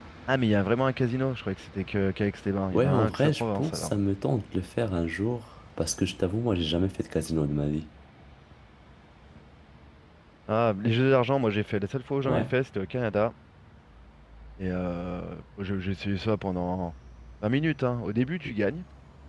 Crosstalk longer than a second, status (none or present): present